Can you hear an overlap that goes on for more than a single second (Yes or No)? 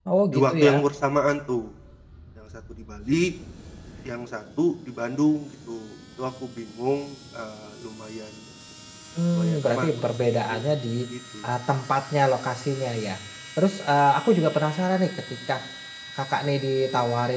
Yes